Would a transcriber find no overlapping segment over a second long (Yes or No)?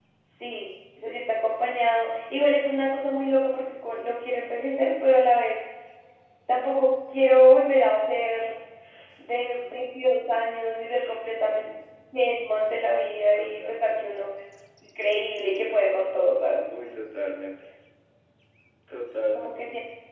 Yes